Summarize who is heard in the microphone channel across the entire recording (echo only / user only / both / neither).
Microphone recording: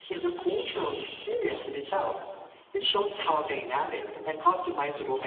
echo only